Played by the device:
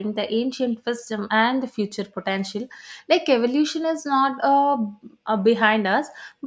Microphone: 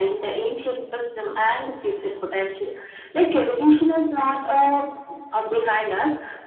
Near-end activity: none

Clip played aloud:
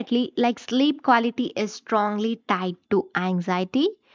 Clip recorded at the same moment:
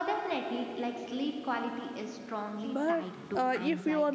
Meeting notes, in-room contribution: present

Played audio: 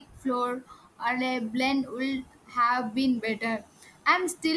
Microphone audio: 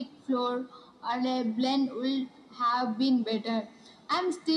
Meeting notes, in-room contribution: none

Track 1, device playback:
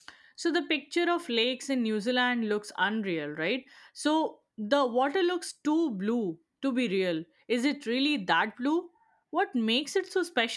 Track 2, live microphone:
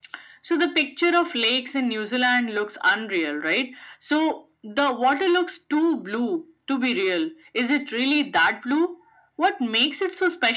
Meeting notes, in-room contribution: none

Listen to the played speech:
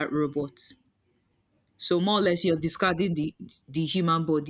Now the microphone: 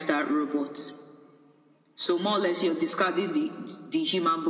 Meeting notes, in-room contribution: none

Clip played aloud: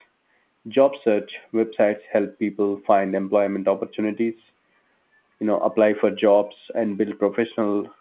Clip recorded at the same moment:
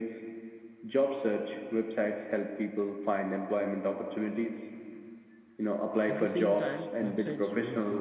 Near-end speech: present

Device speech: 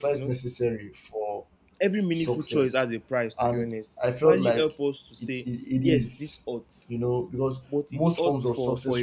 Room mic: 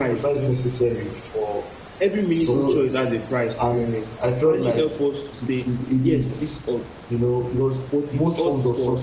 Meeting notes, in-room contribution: present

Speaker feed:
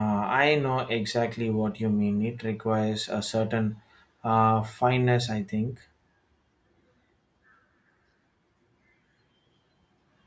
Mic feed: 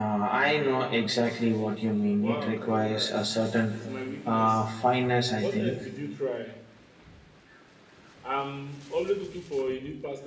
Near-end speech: present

